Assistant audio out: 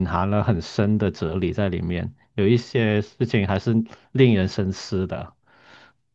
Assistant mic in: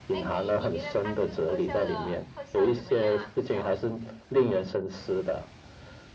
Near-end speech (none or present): present